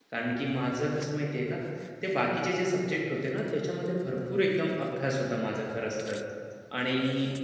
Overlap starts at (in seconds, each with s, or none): none